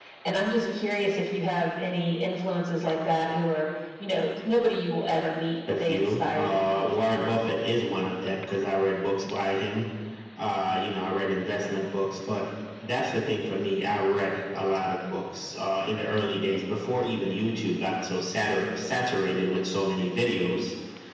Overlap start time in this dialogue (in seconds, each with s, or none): 5.7 s